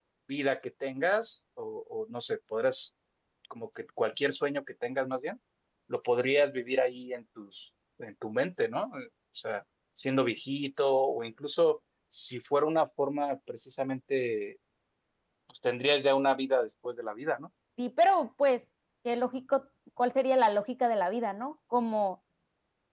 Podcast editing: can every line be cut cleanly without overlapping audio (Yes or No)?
Yes